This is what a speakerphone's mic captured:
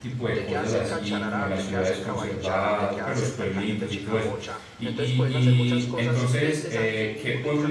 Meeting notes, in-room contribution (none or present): present